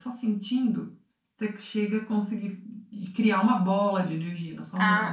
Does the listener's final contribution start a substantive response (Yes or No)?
Yes